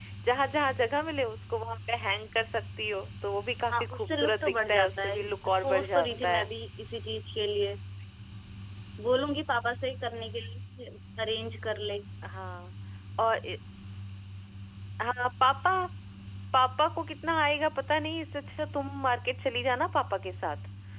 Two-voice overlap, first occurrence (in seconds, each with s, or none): 3.7 s